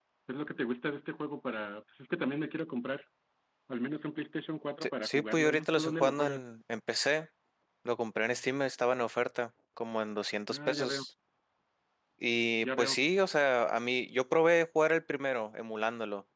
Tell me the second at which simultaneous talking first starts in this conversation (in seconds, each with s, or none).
4.8 s